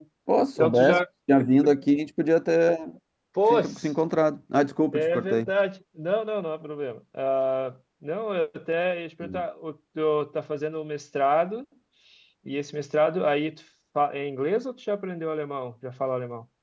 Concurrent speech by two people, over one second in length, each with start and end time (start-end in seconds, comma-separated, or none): none